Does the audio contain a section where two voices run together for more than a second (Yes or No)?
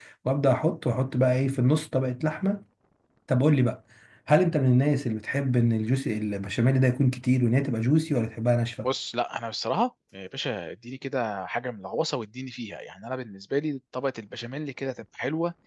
No